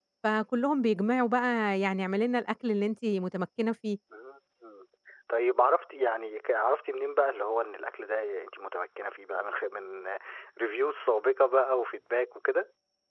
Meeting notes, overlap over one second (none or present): none